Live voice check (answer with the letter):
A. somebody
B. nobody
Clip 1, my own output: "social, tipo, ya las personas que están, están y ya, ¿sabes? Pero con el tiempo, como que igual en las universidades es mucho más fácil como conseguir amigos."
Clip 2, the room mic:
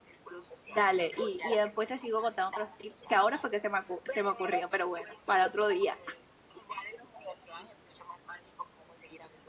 A